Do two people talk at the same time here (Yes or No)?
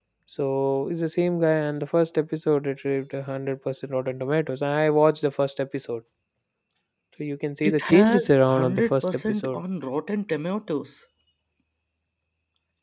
Yes